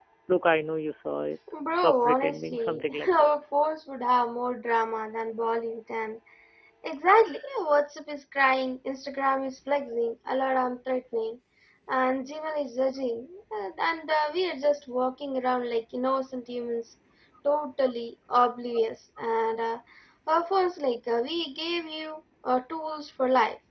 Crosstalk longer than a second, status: present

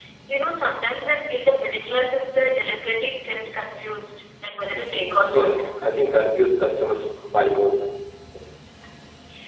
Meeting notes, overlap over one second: none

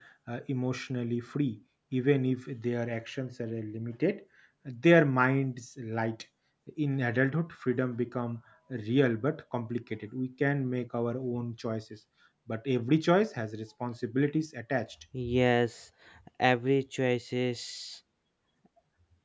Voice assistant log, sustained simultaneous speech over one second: none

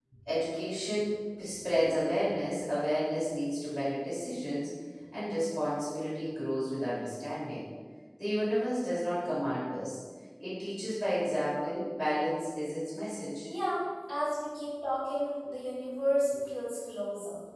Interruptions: none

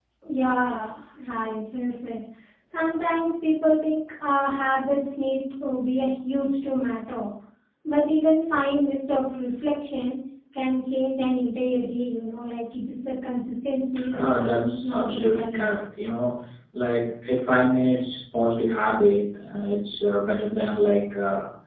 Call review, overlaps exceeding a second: present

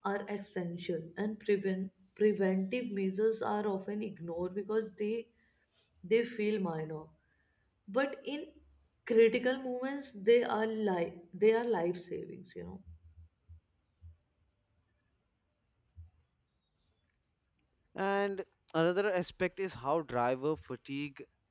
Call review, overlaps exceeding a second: none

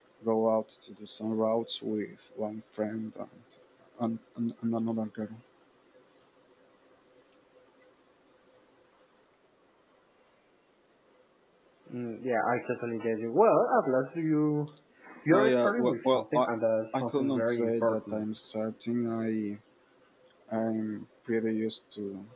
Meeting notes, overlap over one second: present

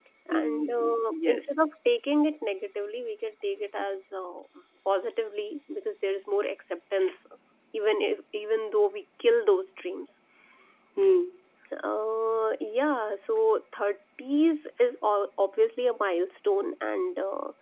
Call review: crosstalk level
present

